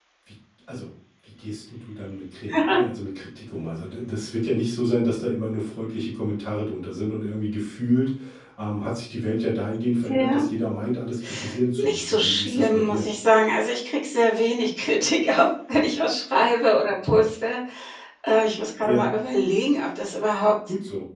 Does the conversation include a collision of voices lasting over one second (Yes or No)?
Yes